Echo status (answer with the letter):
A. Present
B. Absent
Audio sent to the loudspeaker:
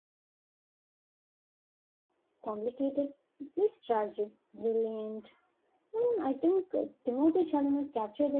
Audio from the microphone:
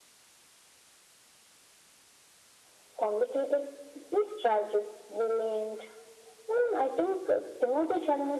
A